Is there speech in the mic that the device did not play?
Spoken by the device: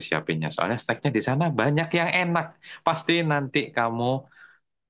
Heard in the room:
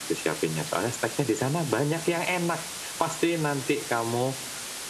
No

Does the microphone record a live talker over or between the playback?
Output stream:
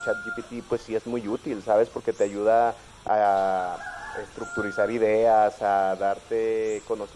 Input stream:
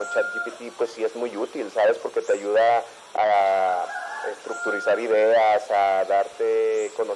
No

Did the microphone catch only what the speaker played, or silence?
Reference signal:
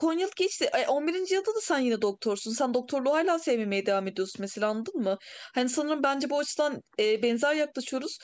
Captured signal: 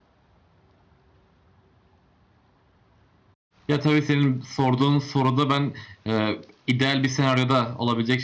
No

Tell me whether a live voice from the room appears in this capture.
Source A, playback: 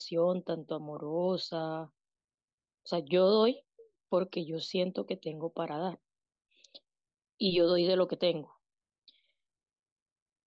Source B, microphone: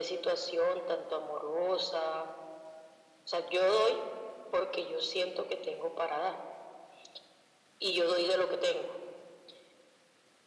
No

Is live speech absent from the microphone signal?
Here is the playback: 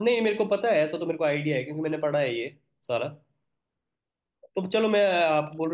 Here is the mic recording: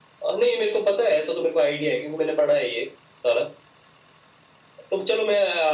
Yes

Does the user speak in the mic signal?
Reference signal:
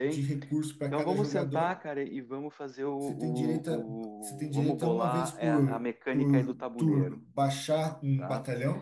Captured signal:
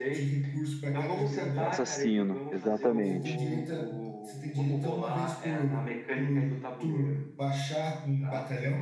Yes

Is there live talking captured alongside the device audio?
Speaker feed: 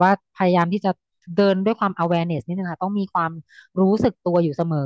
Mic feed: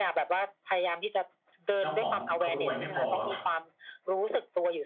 Yes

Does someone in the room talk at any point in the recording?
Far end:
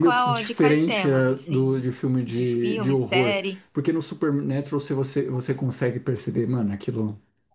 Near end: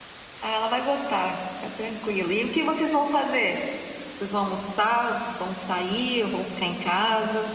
Yes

